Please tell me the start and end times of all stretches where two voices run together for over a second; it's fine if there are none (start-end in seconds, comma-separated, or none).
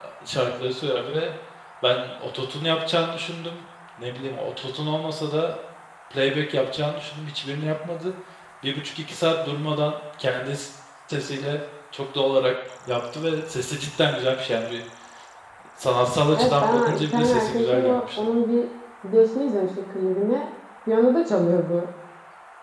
16.3-18.4